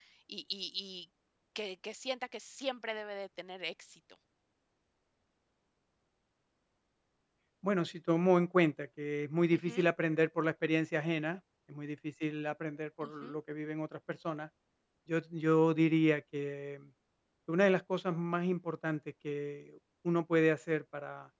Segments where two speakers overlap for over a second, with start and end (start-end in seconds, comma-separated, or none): none